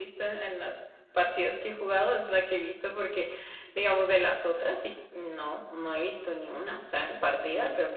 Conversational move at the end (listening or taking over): taking over